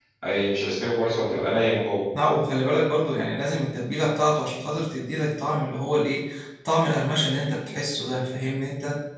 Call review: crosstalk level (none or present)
none